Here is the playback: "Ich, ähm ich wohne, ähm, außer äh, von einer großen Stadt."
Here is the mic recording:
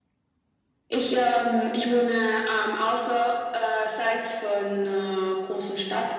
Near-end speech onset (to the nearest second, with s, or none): none